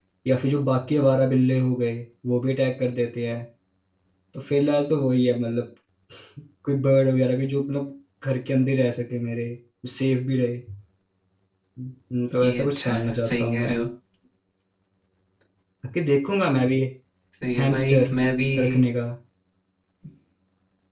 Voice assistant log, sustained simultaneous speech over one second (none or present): present